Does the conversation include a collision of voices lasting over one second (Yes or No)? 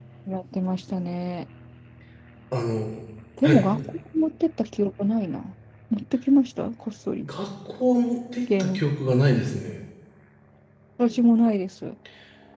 No